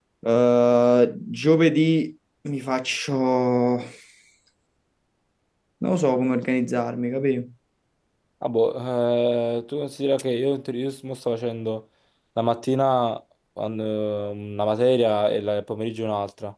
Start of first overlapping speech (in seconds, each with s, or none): none